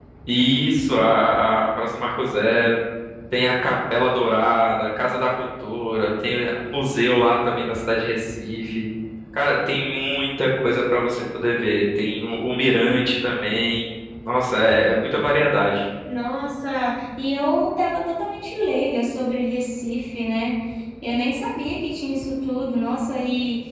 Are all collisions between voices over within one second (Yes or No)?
Yes